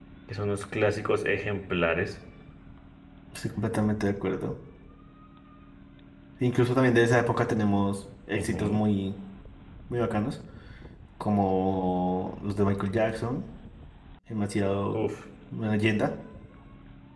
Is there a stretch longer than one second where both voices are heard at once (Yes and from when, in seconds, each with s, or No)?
No